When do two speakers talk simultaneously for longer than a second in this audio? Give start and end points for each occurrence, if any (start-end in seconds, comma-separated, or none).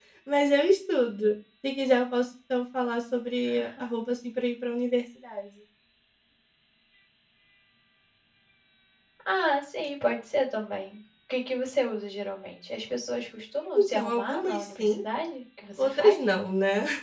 13.8-15.0